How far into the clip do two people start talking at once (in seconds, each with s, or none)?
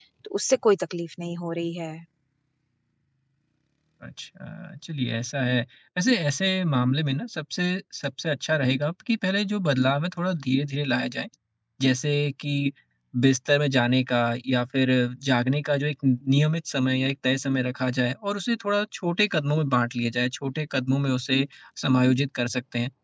none